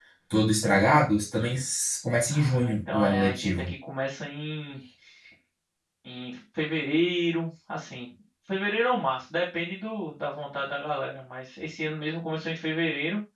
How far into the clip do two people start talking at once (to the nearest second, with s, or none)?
2 s